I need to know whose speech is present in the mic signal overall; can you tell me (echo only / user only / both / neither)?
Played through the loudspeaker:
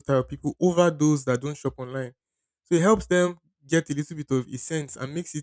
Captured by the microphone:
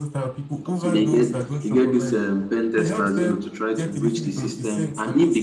both